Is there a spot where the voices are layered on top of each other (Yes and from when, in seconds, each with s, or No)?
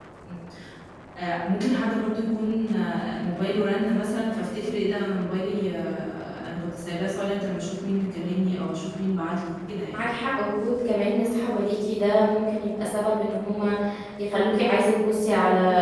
No